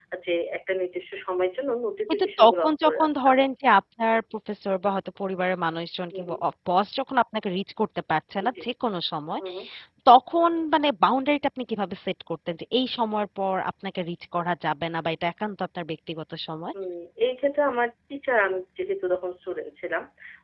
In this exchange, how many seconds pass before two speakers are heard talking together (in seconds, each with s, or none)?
2.1 s